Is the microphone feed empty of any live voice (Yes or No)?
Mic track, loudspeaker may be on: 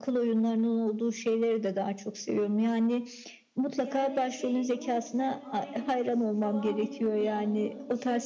No